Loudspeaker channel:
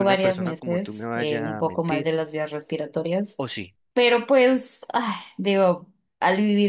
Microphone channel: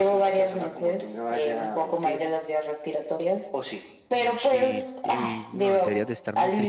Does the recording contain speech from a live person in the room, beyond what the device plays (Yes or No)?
Yes